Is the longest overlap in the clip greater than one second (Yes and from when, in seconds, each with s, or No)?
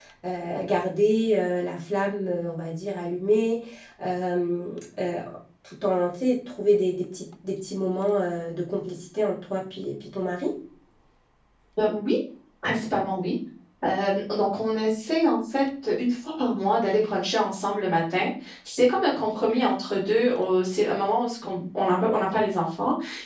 No